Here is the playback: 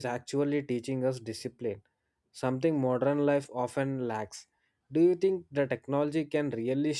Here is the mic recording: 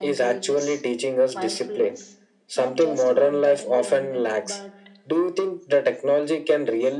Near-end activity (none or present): present